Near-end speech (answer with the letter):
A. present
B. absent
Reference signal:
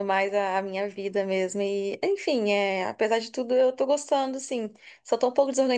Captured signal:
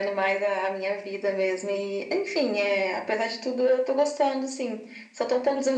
B